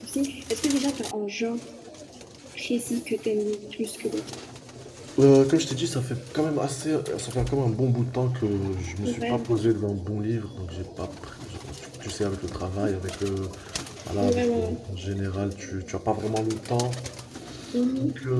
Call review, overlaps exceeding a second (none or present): none